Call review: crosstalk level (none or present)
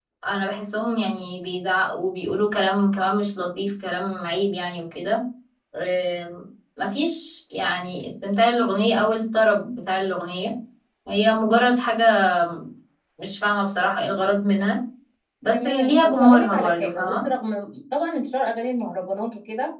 present